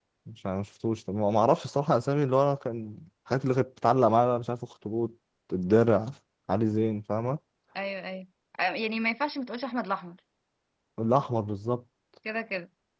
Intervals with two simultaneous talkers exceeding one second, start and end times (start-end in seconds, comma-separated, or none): none